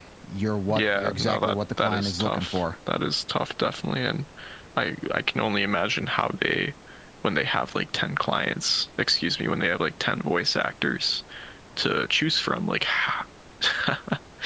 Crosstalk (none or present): present